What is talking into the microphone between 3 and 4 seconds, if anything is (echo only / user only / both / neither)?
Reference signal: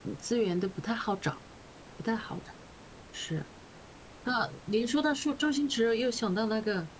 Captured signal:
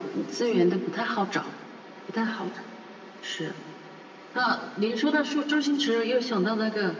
echo only